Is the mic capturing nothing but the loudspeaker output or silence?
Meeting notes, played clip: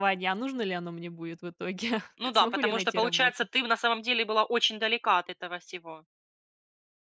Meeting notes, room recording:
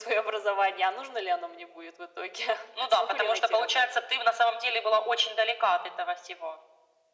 Yes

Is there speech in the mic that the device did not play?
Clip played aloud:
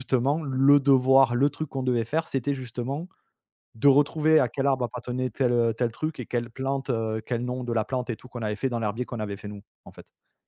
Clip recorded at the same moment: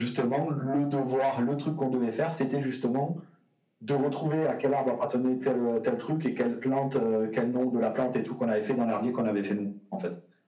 No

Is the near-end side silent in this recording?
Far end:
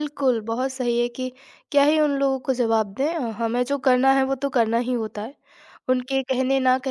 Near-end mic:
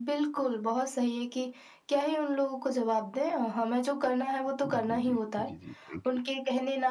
No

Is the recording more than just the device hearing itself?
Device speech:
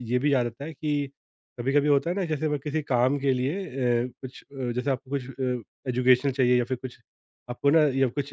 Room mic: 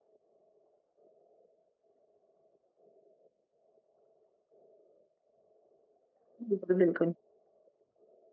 Yes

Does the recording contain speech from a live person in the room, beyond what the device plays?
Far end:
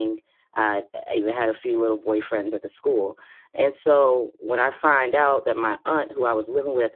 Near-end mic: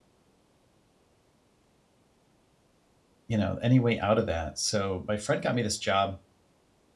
Yes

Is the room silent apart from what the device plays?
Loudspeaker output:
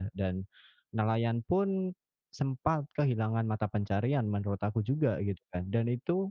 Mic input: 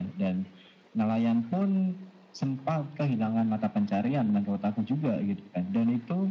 Yes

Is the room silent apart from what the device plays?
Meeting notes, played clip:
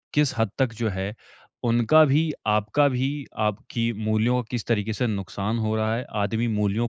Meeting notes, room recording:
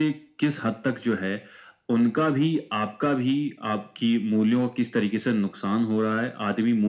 Yes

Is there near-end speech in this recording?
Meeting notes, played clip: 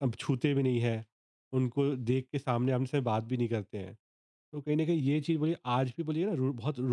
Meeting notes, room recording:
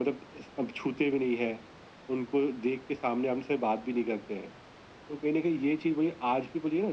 No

